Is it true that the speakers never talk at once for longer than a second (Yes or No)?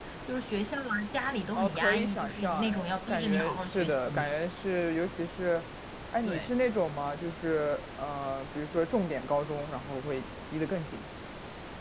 No